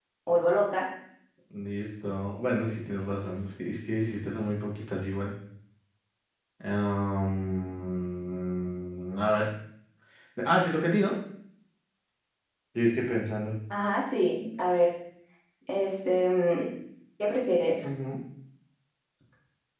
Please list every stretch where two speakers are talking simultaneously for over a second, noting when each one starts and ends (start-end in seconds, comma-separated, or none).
none